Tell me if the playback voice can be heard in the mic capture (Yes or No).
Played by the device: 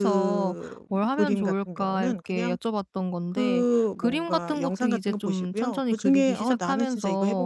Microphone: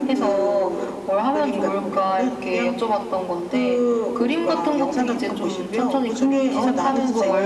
Yes